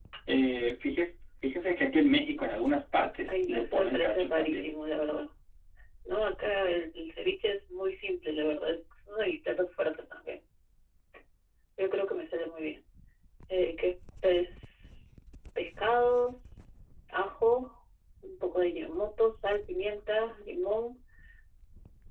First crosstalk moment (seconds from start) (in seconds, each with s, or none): 3.3 s